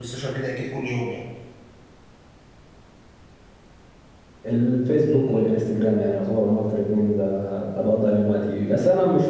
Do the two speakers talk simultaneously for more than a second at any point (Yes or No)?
No